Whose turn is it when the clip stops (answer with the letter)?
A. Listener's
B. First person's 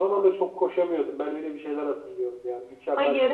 A